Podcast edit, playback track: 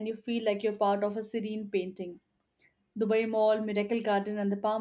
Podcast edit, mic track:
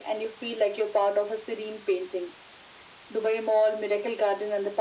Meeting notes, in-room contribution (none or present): none